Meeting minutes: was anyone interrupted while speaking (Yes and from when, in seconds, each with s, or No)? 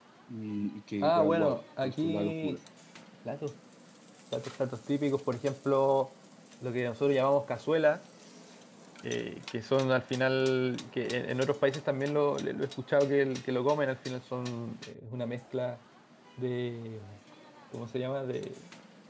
Yes, from 1.0 s